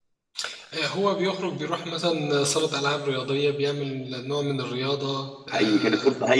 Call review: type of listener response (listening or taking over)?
taking over